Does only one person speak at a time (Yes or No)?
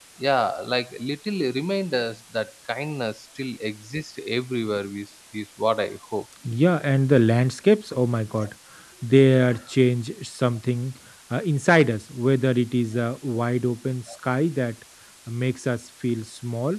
Yes